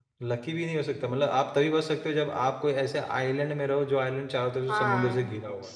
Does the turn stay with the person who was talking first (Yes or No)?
No